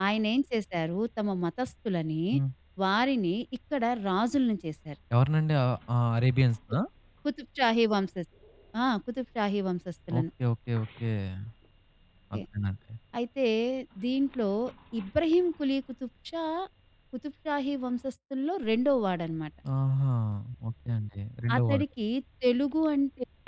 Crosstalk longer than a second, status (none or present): none